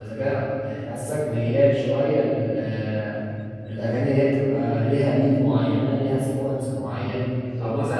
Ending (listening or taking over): listening